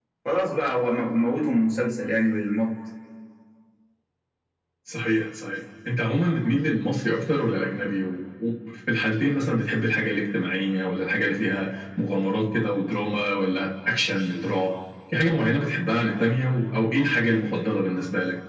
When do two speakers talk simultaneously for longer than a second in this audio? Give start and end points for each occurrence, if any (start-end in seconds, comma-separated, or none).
none